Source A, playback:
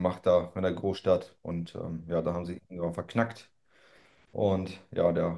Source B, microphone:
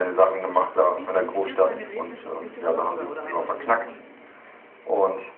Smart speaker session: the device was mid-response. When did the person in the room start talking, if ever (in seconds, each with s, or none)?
0.6 s